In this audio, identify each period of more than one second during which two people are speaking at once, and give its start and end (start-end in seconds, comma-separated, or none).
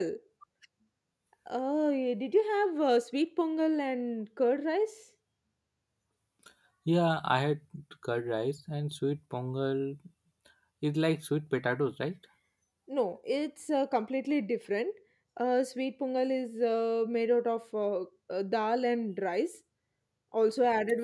none